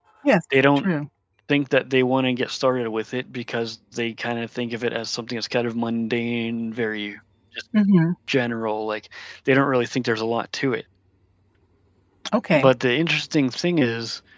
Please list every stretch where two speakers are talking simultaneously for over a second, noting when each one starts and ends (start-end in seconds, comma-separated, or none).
none